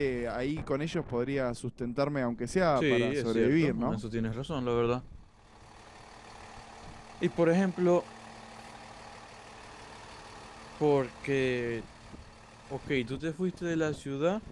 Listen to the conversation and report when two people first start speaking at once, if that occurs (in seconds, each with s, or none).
2.8 s